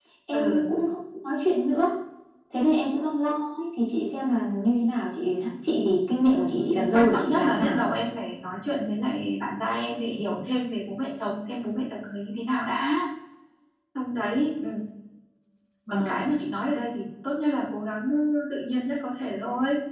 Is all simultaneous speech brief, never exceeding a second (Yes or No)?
No